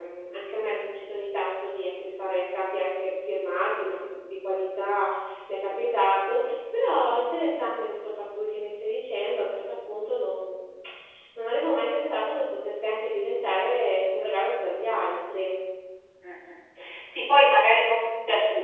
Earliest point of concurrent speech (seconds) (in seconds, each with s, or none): none